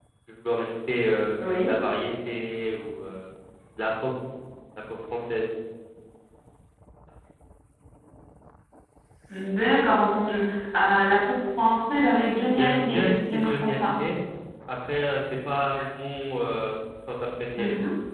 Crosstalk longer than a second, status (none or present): present